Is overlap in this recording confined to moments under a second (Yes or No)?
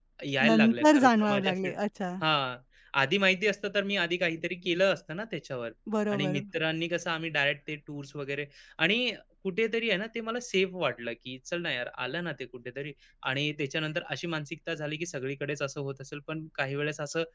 No